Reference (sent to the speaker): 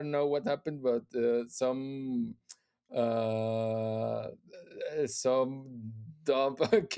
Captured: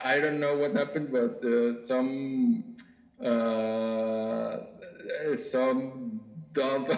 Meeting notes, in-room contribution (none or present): none